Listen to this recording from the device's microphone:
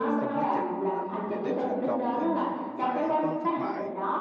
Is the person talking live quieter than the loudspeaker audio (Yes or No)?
Yes